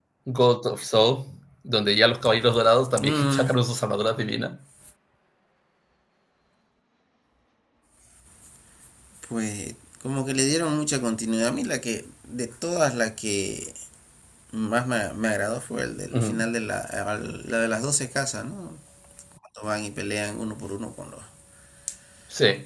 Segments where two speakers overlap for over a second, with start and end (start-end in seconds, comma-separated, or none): none